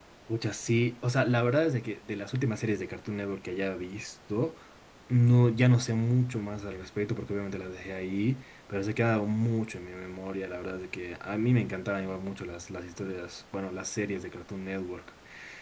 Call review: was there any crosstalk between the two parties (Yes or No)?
No